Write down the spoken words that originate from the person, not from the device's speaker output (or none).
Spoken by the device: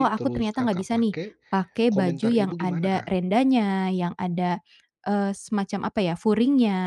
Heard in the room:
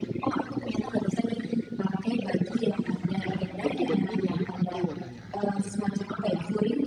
Bentuk bajunya mirip atau warnanya aja, Kak, yang mirip?